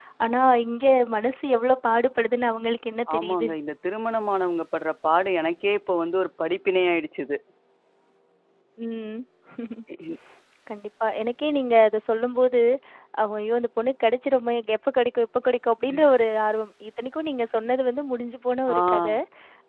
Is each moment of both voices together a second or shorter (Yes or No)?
Yes